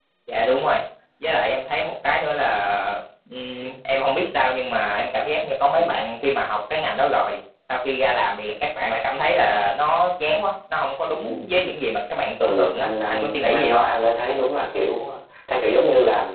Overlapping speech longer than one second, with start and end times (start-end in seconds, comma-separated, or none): 12.4-13.8